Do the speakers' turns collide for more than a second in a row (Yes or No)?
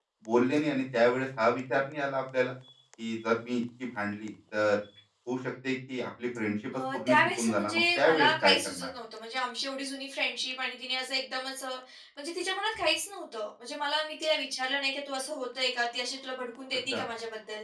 Yes